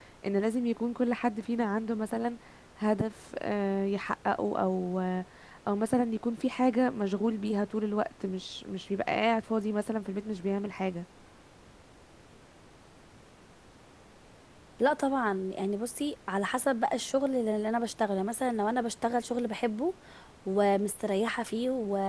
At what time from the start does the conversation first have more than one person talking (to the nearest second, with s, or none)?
none